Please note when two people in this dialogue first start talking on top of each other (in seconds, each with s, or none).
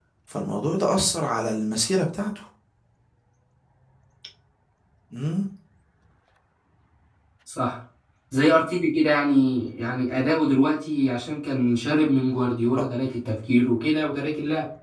none